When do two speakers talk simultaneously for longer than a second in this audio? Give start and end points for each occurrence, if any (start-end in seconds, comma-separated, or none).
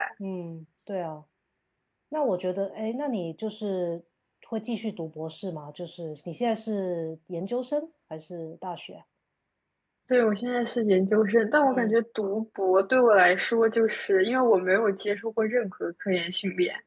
none